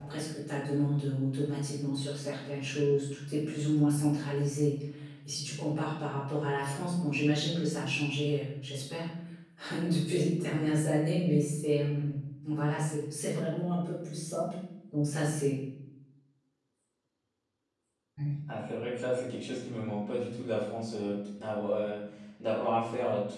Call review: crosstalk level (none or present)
none